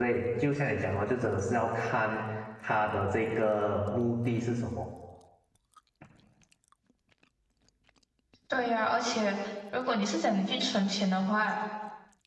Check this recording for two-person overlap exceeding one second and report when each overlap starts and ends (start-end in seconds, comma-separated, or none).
none